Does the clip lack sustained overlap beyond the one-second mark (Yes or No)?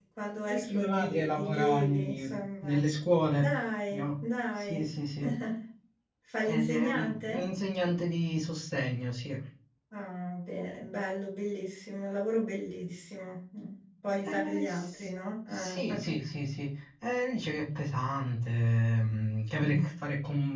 No